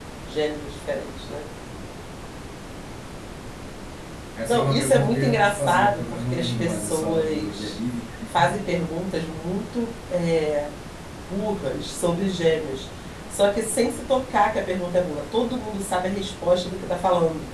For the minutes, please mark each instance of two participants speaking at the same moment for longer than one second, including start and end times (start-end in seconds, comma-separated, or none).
4.5-7.8